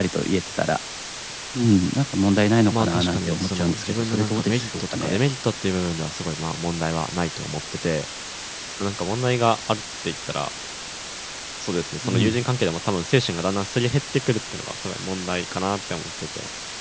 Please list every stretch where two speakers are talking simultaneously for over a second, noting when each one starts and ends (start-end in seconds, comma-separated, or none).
2.7-5.2